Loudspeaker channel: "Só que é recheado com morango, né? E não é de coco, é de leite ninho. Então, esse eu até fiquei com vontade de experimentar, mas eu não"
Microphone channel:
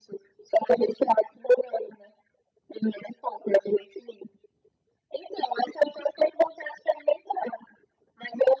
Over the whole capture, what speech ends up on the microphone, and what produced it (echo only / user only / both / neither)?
echo only